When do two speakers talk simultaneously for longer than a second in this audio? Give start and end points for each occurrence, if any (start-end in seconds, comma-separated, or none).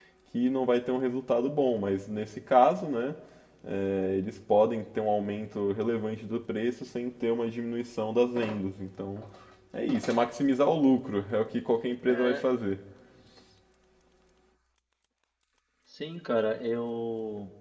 none